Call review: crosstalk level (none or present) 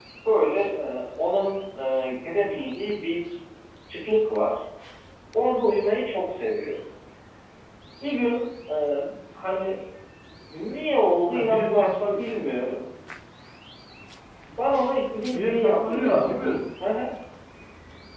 present